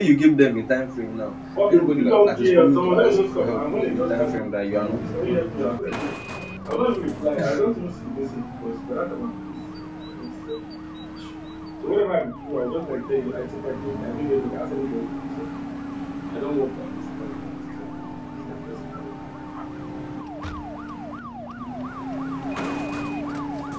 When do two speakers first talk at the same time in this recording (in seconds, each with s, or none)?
1.7 s